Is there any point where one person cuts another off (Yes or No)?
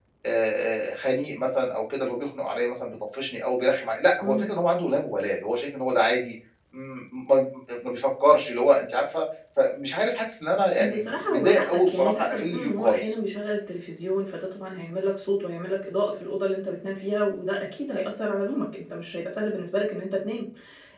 Yes